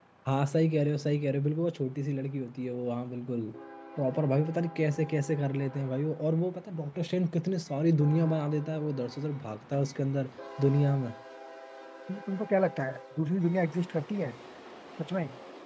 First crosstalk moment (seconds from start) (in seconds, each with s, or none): none